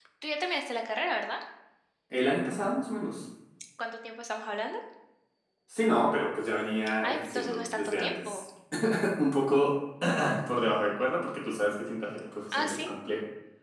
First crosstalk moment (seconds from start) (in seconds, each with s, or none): 7.0 s